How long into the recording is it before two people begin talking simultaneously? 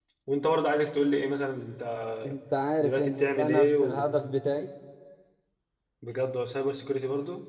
2.8 s

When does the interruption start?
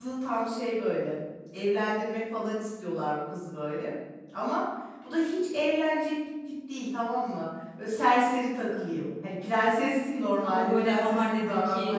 10.4 s

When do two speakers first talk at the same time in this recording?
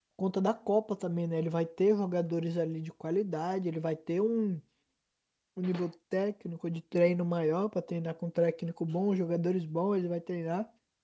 none

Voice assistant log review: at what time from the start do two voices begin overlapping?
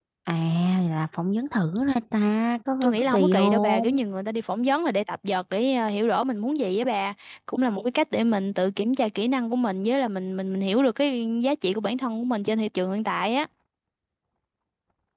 2.8 s

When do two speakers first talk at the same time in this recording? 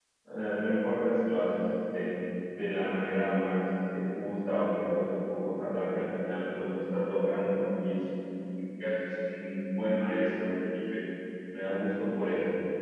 none

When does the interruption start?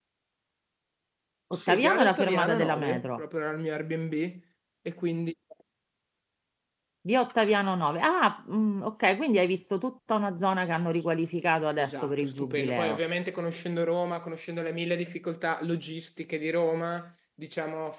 1.5 s

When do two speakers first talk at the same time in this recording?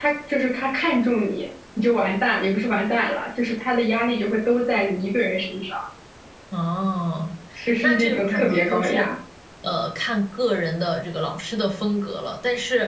7.8 s

